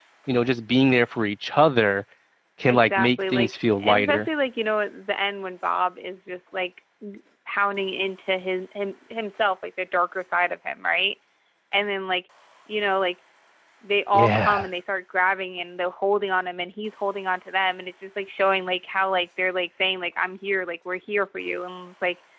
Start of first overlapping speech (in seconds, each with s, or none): 2.7 s